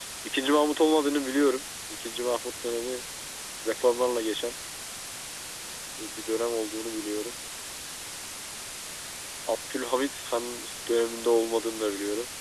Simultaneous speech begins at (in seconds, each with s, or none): none